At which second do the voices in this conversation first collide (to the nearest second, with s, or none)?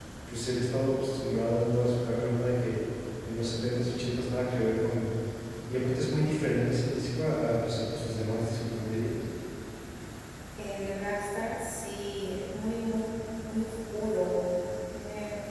none